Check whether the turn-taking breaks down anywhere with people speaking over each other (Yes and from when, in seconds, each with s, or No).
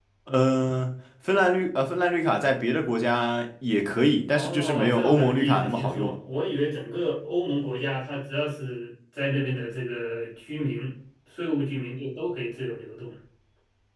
Yes, from 4.3 s